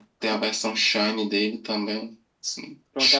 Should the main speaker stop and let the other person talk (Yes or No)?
Yes